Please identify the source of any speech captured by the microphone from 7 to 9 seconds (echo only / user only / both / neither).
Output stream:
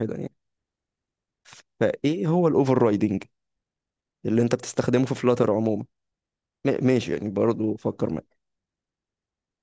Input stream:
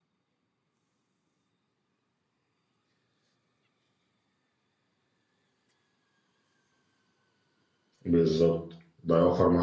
user only